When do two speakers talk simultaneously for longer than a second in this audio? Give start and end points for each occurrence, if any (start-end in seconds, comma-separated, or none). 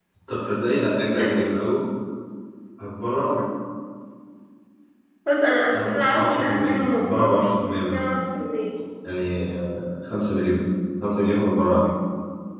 5.7-7.0